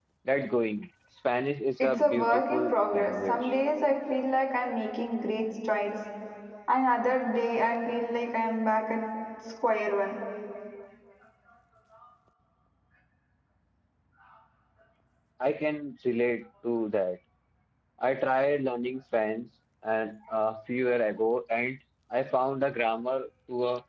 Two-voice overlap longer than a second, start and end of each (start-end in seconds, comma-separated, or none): 1.8-3.5